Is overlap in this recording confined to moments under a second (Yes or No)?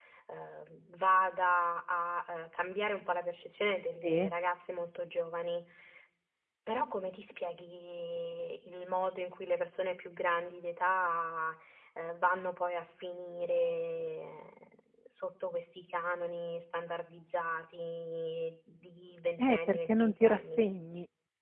No